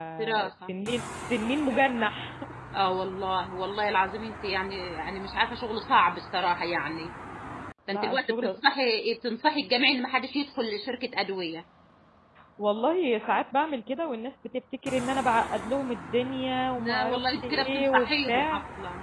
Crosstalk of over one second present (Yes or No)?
Yes